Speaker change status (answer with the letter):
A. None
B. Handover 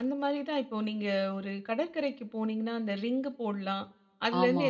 A